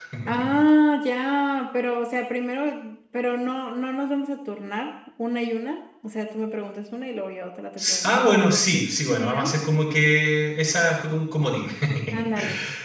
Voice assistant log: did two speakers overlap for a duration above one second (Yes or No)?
No